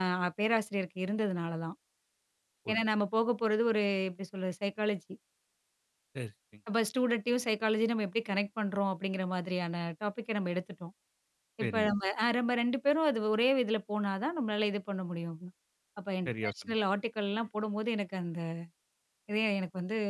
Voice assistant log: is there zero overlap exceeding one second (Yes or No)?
Yes